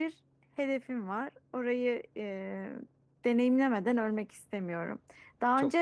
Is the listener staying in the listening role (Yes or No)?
Yes